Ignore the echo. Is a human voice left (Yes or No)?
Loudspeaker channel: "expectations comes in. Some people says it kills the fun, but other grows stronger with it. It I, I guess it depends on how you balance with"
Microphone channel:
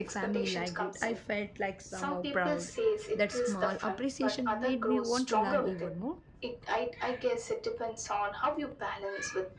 Yes